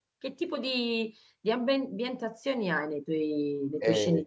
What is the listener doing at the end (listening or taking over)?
taking over